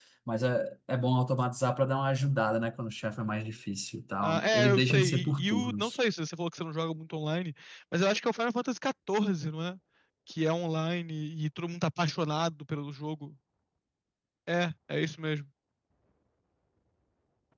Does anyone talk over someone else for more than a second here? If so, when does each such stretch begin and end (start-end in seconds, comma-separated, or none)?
4.2-6.0